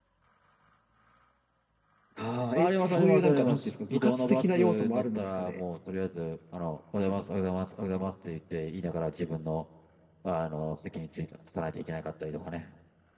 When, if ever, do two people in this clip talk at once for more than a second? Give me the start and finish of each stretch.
2.5-5.6

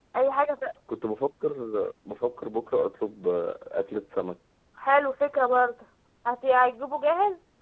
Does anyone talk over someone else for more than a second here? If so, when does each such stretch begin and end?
none

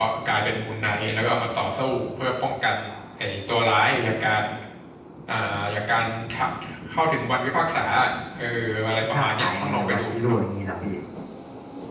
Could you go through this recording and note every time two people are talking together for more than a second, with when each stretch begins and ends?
9.0-10.4

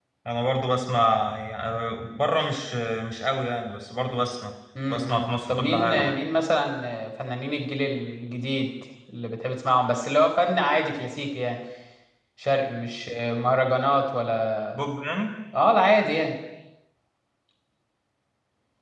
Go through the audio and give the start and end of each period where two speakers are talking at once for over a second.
4.9-6.1

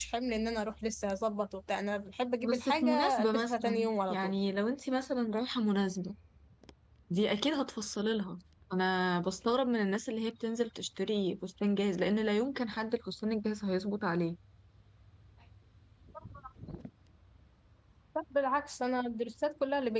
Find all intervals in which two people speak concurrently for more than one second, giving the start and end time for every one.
2.4-4.3

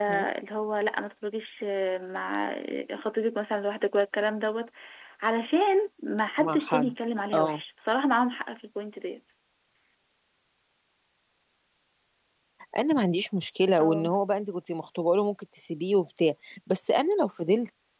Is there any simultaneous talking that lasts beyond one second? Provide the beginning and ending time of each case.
none

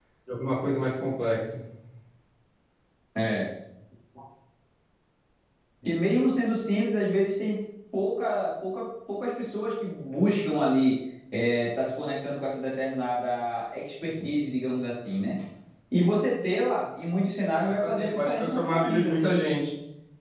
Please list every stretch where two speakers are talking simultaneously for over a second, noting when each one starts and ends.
17.6-19.2

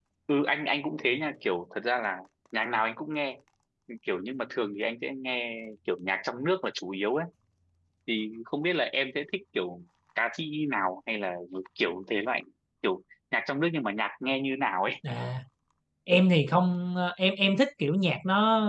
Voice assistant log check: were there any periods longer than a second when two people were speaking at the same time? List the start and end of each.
none

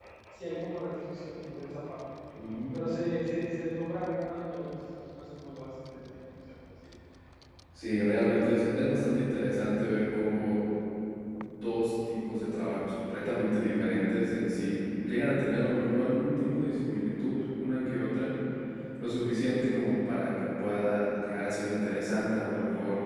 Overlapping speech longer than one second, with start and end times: none

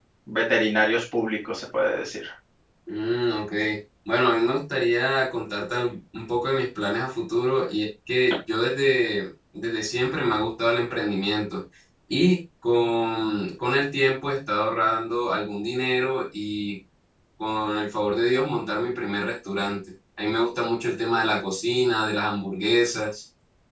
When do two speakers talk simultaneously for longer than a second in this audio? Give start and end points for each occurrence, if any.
none

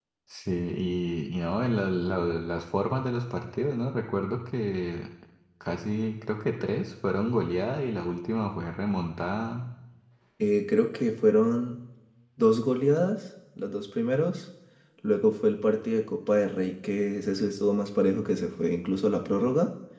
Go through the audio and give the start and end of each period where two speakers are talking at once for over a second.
none

